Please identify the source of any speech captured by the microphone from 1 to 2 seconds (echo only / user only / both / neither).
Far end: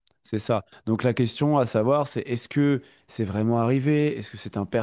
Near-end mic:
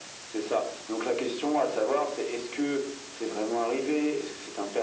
echo only